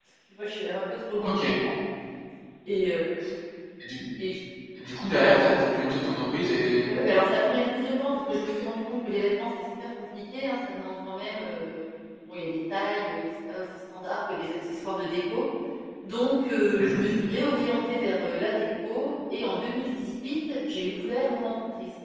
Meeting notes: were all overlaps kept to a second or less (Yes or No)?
Yes